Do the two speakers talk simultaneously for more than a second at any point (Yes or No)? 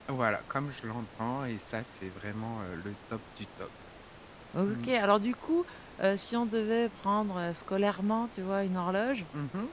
No